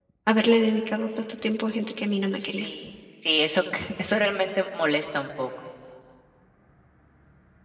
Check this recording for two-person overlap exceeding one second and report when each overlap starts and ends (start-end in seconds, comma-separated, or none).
none